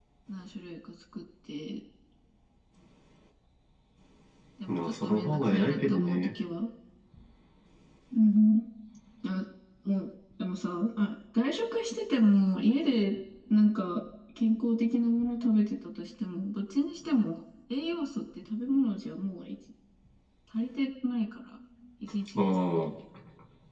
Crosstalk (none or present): present